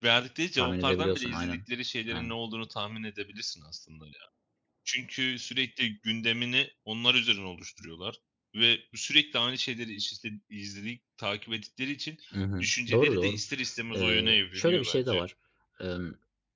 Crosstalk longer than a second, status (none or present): present